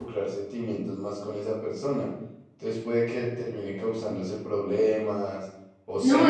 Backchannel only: No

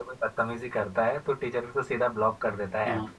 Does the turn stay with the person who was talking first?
No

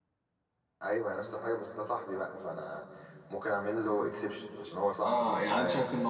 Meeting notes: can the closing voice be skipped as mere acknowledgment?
No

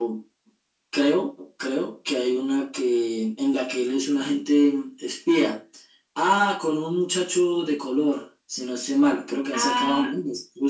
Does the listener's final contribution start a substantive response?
Yes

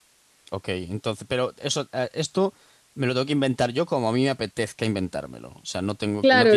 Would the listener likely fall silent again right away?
No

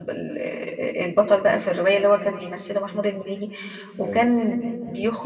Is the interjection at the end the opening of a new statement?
No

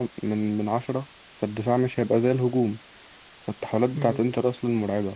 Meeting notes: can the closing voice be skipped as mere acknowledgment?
Yes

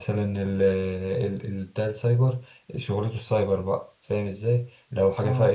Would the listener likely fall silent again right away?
Yes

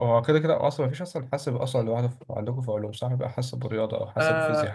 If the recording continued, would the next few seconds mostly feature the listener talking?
Yes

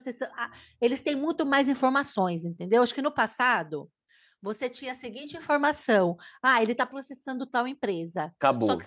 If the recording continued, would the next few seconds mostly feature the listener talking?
No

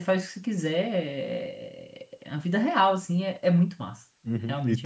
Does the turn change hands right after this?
Yes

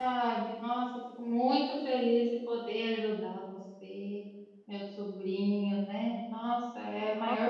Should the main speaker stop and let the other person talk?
Yes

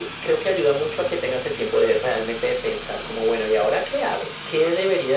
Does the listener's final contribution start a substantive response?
No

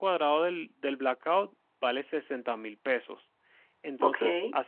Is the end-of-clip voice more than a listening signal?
No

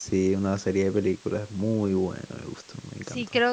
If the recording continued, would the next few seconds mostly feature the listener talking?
Yes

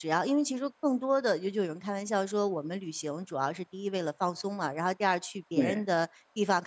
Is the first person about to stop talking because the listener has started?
No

